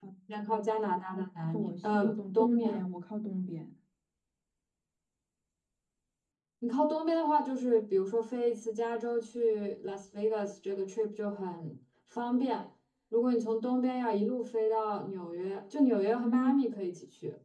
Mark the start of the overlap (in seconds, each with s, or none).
1.5 s